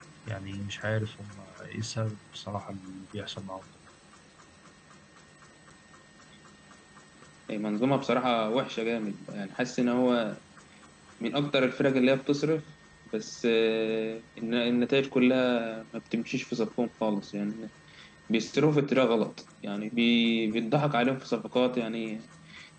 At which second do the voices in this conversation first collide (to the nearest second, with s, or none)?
none